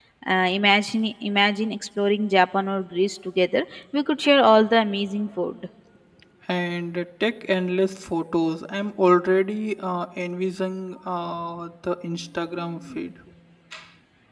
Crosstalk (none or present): none